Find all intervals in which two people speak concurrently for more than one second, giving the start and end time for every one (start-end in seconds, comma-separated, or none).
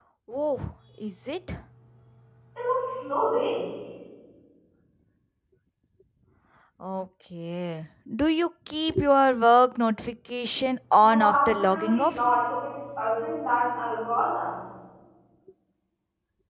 11.0-12.3